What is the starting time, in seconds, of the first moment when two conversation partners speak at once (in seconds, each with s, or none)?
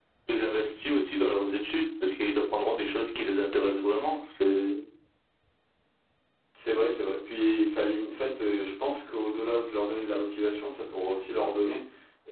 none